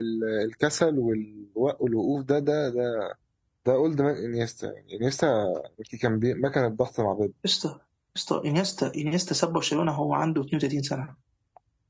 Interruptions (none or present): none